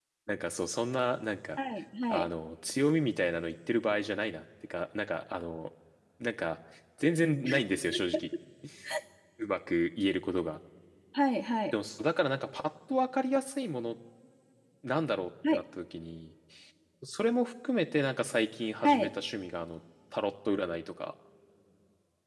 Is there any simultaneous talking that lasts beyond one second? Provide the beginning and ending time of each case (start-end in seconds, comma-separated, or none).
none